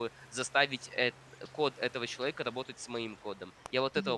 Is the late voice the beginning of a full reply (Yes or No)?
Yes